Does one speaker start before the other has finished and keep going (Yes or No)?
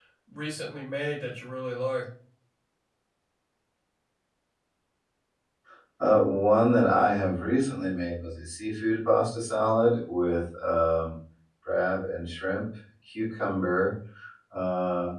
No